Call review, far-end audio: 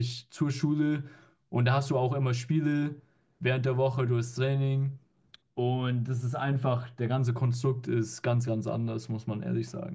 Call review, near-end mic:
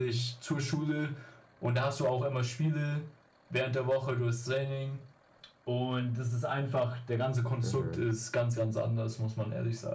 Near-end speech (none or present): present